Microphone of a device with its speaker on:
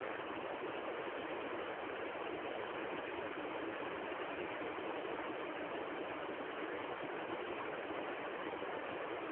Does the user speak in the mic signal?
No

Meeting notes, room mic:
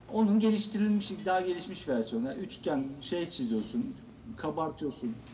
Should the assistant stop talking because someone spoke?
No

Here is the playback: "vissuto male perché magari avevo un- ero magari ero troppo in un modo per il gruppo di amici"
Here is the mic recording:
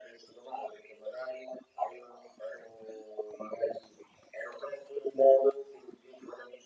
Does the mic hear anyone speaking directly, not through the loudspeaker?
No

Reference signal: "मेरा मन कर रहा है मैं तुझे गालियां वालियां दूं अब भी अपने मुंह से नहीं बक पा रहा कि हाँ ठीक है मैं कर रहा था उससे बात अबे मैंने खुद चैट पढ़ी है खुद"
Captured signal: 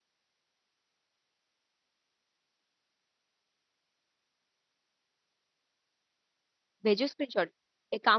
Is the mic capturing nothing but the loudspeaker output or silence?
No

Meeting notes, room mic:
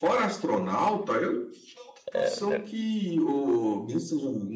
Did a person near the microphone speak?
Yes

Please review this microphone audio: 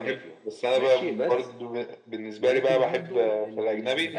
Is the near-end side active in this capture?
Yes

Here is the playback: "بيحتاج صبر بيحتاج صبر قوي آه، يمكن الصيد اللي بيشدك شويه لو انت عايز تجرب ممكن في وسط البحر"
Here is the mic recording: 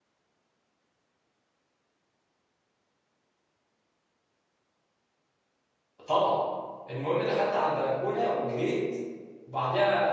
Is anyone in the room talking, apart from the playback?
Yes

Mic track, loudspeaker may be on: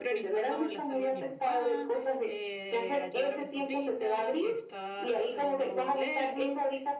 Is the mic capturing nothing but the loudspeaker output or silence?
No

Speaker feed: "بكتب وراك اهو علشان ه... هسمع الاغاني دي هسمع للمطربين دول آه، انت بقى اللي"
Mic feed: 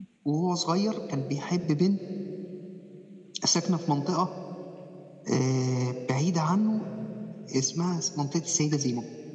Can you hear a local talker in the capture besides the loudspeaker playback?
Yes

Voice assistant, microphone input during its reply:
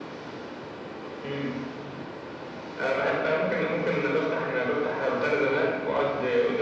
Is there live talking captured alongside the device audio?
No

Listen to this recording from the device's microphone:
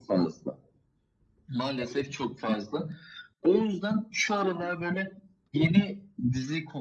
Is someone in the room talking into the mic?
No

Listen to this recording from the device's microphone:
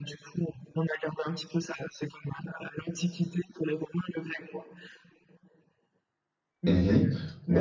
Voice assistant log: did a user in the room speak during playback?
Yes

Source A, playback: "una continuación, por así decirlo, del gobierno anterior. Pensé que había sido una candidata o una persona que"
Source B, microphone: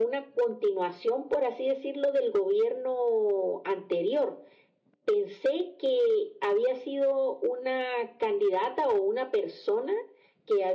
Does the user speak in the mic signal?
No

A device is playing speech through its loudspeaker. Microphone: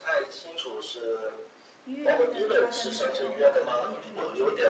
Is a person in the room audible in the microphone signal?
Yes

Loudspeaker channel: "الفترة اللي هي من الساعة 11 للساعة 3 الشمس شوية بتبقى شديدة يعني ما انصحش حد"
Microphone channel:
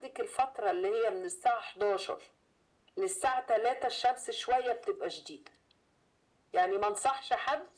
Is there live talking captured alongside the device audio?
No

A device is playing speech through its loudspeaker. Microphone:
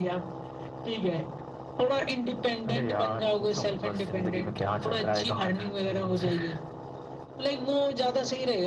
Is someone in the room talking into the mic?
No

